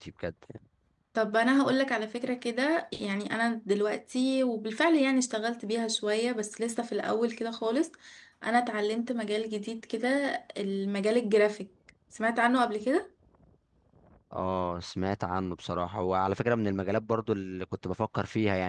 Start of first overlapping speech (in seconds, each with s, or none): none